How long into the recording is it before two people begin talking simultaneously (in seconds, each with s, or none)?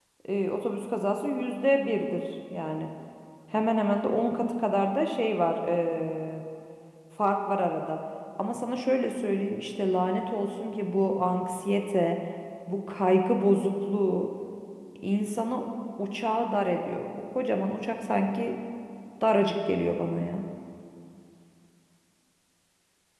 none